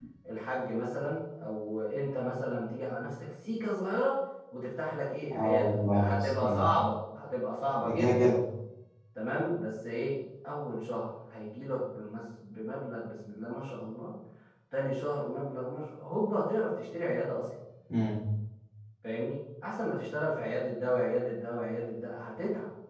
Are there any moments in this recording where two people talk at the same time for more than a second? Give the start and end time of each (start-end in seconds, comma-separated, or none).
5.3-6.7